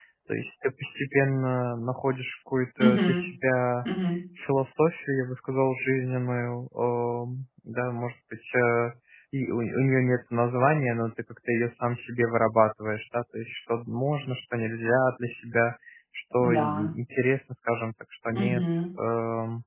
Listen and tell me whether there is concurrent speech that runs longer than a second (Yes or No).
No